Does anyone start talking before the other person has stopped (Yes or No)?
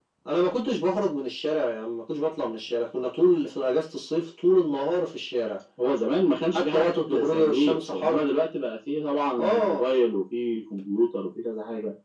Yes